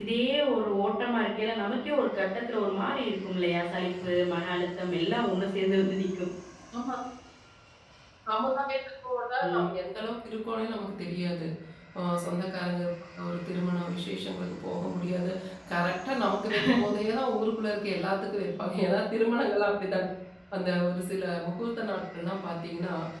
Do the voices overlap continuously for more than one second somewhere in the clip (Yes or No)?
No